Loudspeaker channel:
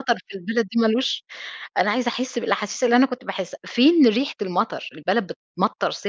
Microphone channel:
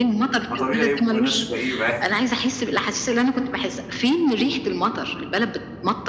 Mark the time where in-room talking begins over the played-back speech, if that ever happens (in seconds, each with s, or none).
0.5 s